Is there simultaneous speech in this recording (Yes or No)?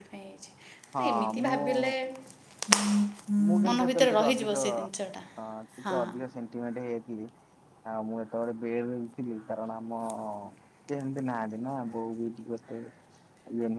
Yes